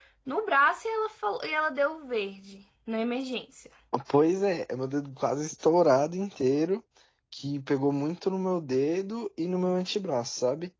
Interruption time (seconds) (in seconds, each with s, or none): none